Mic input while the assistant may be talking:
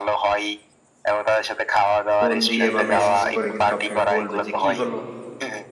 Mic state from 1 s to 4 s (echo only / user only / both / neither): both